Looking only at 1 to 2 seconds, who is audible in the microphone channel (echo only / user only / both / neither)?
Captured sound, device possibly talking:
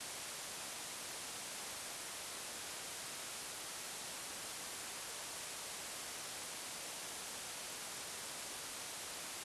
neither